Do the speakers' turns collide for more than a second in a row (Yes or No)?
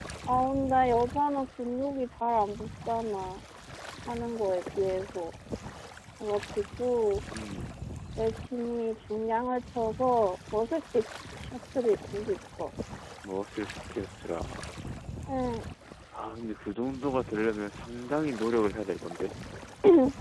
No